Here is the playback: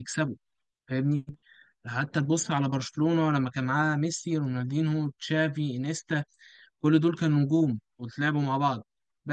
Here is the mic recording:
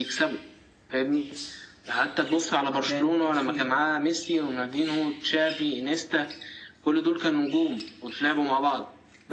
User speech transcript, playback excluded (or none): ما كانت في